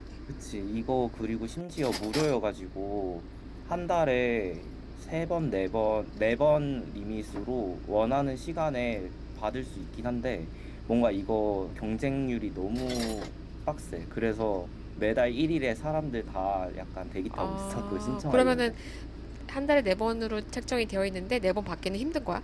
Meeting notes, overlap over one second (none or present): present